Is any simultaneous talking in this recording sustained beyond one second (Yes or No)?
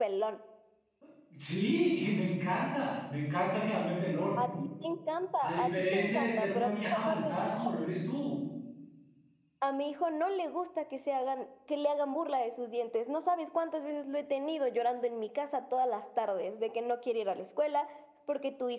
Yes